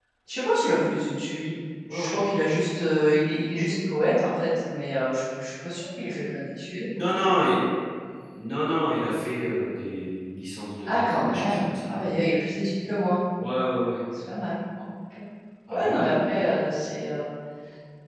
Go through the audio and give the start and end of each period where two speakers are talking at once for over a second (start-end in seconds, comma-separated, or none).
10.8-12.1